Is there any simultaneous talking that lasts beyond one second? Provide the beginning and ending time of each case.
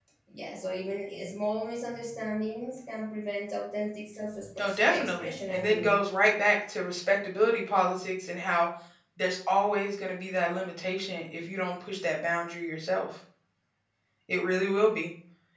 4.6-6.0

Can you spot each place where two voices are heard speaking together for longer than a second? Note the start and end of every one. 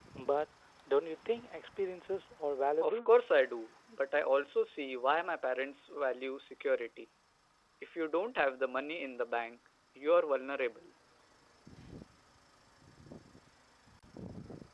none

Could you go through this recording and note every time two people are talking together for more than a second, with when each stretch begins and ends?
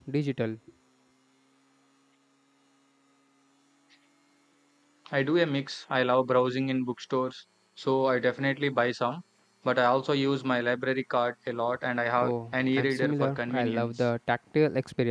12.2-13.9

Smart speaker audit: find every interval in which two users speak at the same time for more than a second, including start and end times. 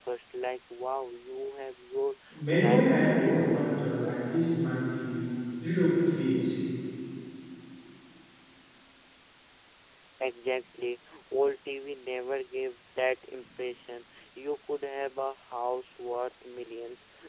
2.3-3.6

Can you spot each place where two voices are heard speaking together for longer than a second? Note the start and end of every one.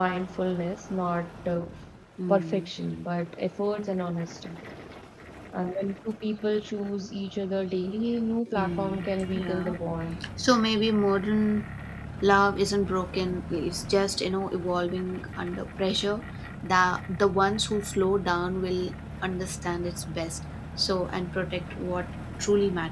8.5-9.8

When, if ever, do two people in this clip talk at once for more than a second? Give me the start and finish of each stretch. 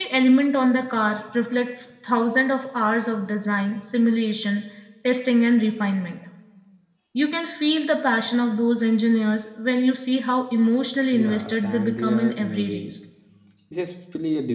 11.1-12.9

